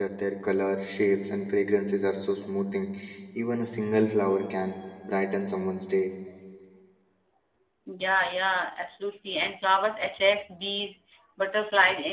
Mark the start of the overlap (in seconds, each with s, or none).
none